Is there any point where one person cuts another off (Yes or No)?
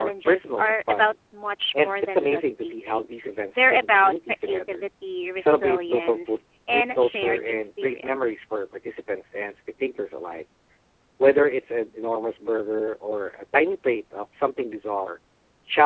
Yes